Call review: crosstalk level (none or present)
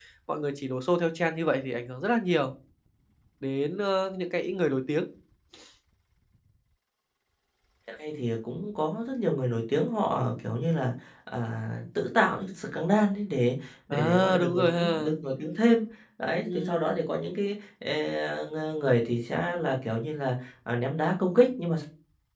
present